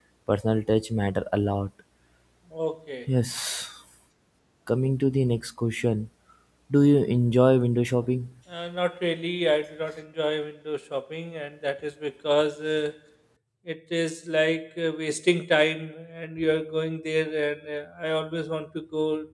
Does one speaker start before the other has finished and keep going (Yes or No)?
No